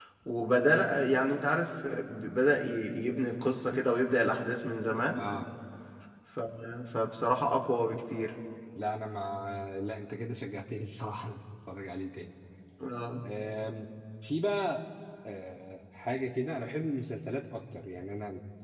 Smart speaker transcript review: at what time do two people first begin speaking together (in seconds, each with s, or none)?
none